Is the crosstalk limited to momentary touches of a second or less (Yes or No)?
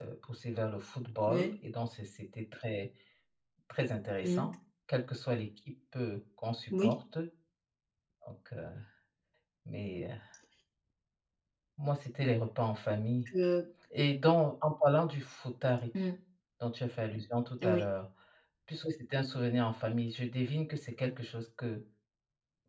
Yes